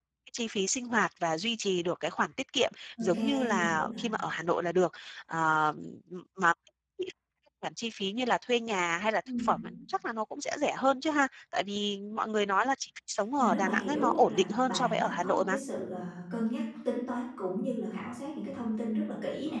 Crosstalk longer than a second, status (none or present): present